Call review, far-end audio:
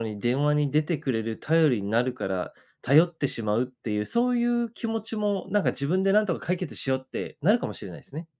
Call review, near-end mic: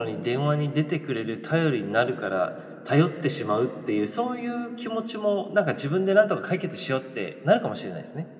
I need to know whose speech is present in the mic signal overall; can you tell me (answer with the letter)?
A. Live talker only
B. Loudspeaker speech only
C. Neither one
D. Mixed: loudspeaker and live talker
B